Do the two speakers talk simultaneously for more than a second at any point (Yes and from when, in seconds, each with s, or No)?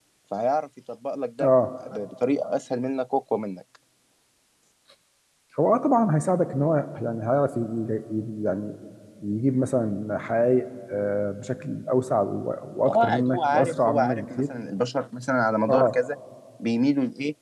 Yes, from 12.9 s